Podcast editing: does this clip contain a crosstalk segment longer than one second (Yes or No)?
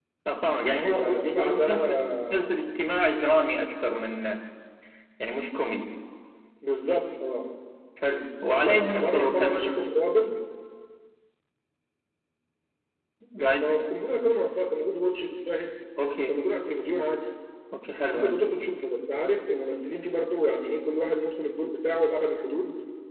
Yes